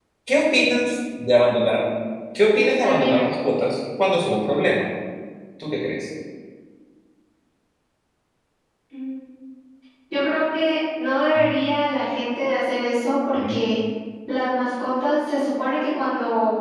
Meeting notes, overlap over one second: none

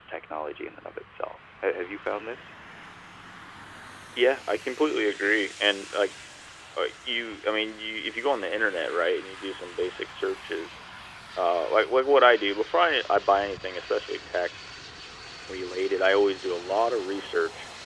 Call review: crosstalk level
none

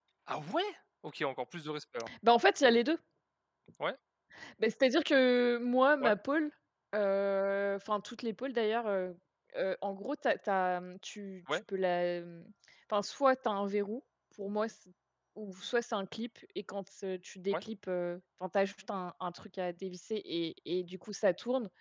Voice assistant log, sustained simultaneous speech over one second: none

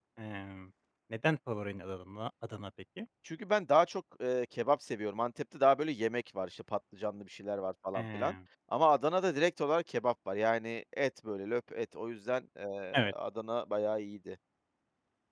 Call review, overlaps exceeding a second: none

